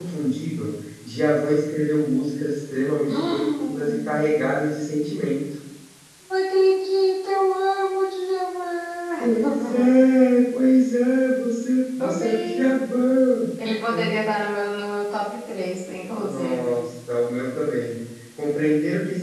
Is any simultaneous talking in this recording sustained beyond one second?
Yes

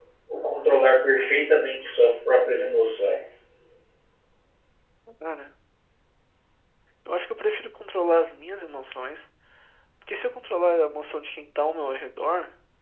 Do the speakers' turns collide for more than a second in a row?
No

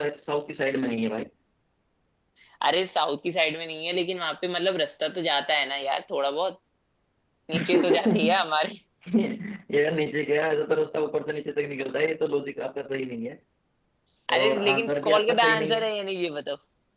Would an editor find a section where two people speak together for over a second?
Yes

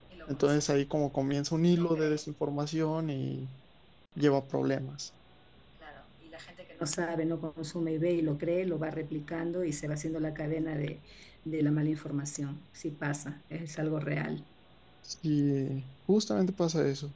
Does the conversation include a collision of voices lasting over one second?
No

